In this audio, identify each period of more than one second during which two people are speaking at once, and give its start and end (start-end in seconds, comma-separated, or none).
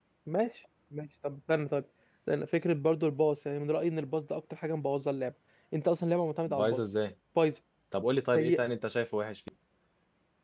none